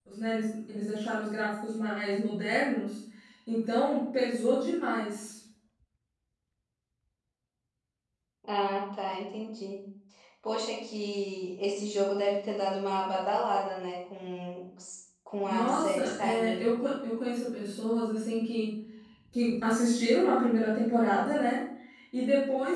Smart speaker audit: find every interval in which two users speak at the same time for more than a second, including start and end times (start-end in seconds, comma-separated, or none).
15.4-16.7